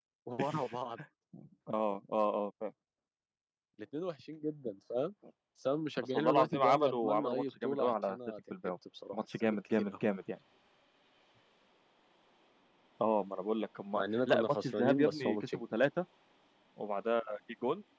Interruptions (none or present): present